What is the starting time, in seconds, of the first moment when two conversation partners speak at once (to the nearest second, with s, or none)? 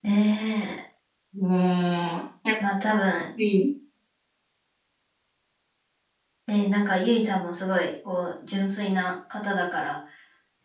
none